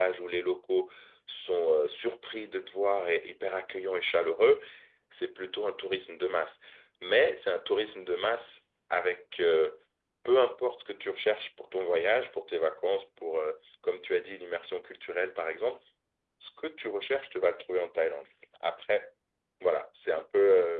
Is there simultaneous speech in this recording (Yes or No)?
No